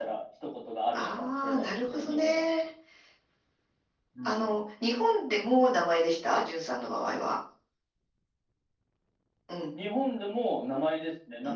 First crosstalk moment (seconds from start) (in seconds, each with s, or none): 0.9 s